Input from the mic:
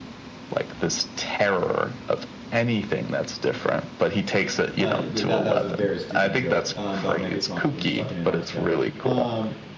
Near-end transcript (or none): Uh, th- that that was a very stupid joke um, about Megatron being stuck in Antarctica. Um,